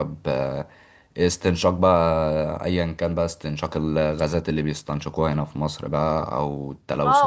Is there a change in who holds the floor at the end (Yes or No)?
Yes